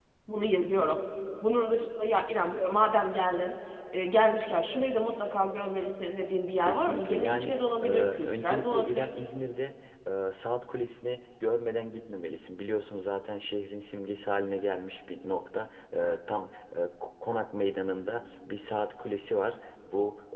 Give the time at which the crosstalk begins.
6.6 s

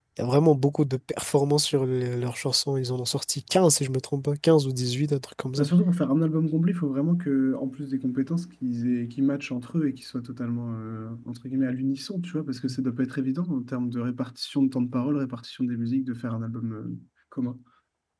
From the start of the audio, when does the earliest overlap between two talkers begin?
none

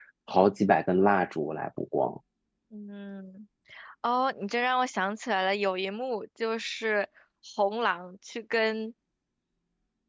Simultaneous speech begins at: none

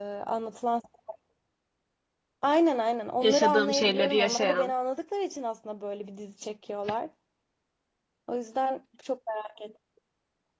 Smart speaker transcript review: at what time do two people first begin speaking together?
3.2 s

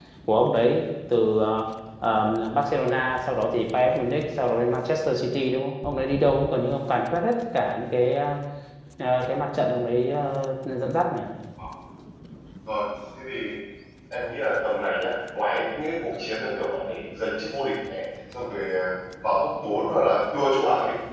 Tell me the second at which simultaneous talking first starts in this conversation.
none

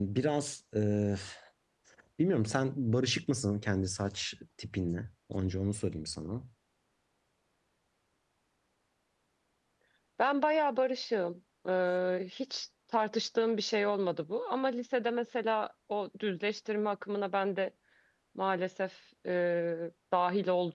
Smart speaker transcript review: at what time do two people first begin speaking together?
none

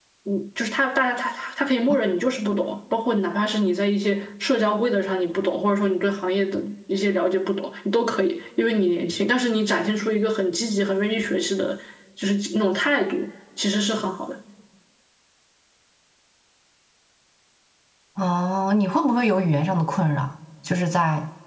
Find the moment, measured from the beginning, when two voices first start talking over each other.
none

